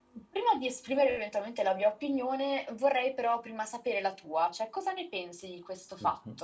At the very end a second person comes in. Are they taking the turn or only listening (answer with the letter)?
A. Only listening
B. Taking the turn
B